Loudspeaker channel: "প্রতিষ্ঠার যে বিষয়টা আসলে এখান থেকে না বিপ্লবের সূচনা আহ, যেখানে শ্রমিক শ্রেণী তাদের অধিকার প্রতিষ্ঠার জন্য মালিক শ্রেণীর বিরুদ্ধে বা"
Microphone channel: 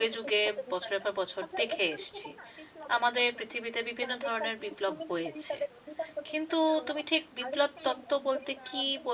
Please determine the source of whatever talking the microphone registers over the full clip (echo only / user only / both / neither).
both